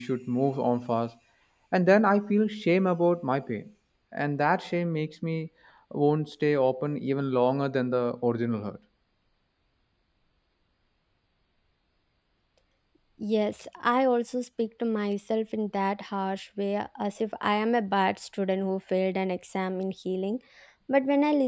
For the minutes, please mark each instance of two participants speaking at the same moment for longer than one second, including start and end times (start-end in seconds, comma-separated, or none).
none